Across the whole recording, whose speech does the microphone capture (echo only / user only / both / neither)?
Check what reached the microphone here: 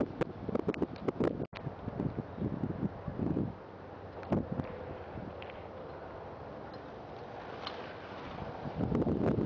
neither